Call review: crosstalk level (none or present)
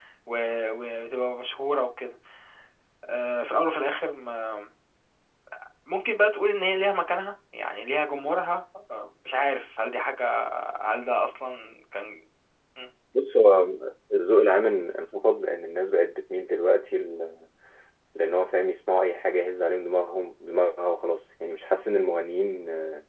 none